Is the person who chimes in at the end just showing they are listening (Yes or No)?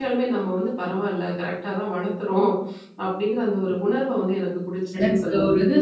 No